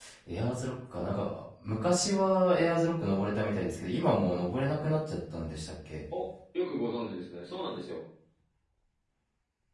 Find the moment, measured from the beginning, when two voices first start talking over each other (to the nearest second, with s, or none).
none